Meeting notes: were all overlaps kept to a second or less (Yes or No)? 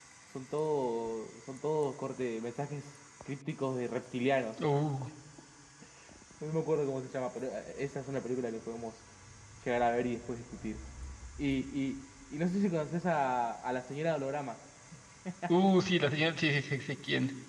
Yes